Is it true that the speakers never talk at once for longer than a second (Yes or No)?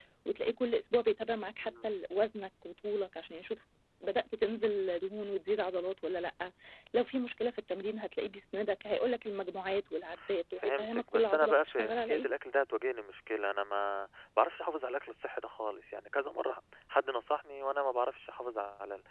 No